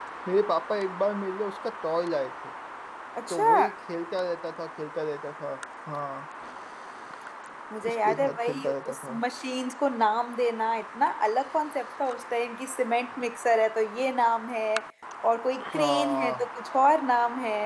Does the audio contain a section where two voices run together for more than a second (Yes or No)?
Yes